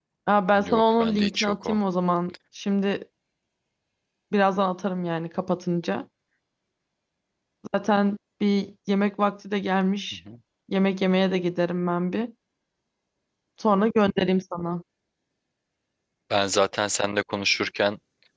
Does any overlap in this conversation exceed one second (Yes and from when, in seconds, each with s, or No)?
Yes, from 0.6 s